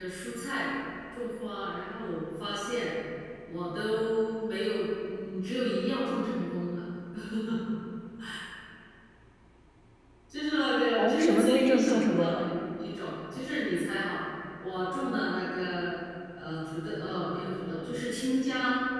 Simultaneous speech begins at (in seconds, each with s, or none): 11.0 s